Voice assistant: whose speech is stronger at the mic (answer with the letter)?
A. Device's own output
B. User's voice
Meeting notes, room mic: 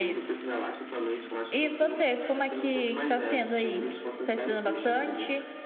B